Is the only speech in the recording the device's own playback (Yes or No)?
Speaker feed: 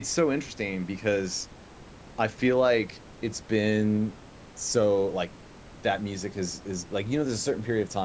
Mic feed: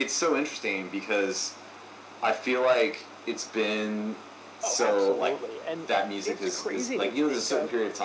No